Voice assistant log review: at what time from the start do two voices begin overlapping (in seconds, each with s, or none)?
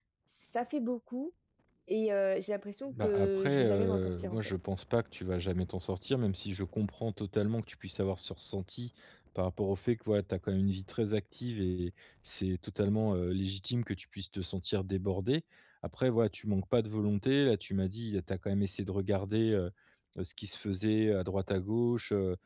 2.9 s